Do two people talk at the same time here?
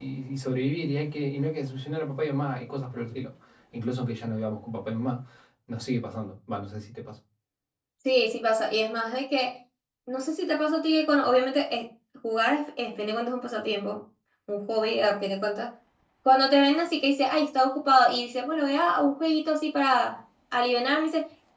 No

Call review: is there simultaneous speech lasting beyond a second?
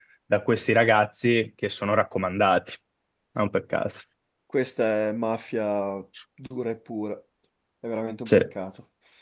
No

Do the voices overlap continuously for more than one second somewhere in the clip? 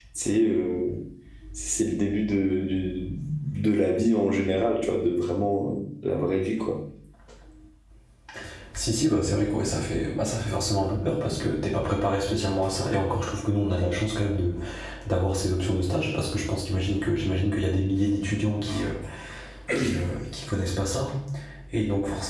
No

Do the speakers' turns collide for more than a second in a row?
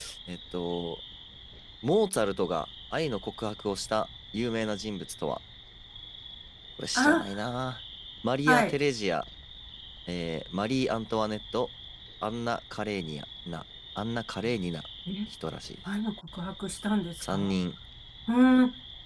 No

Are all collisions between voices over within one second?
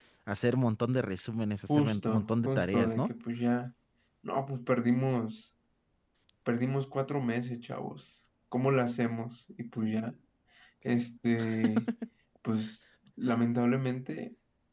No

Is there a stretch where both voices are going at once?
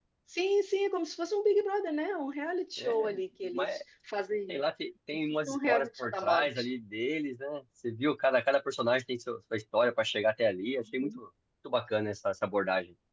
Yes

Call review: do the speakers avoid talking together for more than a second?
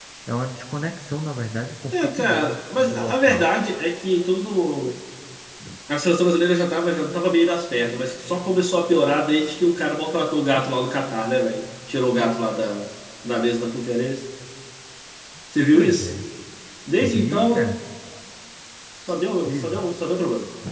No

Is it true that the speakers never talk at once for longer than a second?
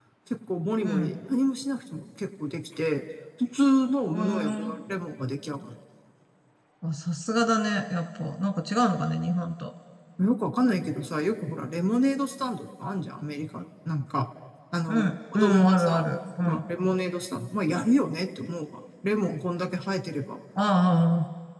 No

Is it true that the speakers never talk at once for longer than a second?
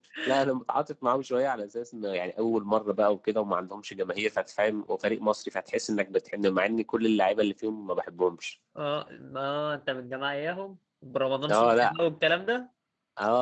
Yes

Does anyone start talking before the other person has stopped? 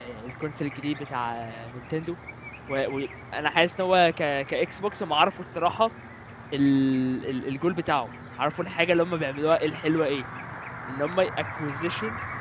No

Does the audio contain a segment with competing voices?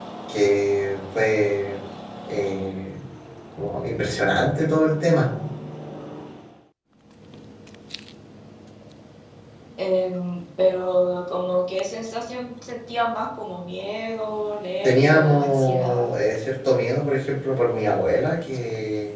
Yes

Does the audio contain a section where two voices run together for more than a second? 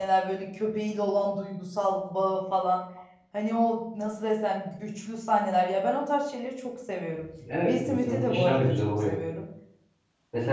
Yes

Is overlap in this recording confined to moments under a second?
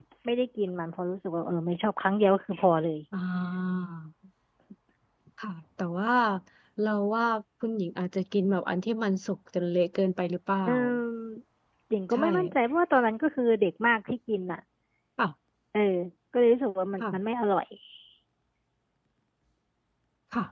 Yes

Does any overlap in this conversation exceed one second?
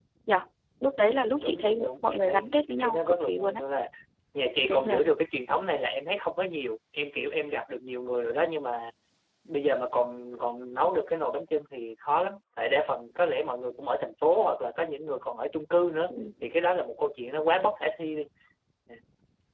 Yes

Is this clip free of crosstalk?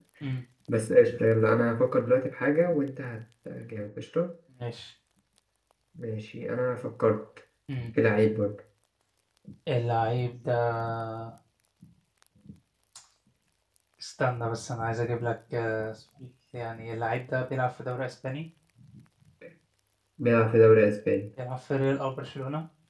Yes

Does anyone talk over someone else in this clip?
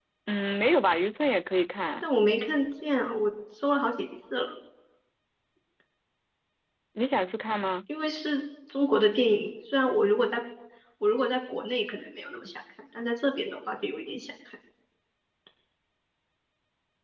No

